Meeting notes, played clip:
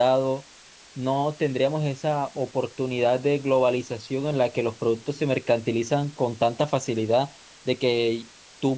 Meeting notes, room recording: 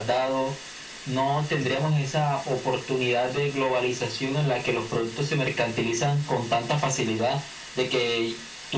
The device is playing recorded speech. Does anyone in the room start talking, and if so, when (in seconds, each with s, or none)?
none